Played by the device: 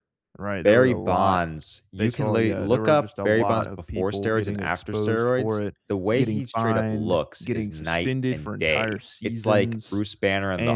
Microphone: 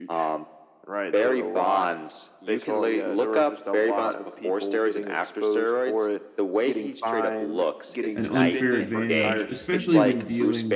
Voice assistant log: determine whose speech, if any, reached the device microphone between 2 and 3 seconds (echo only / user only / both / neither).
echo only